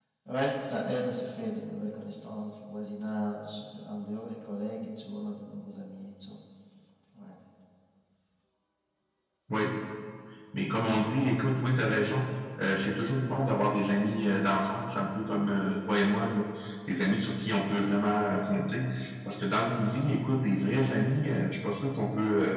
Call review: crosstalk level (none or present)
none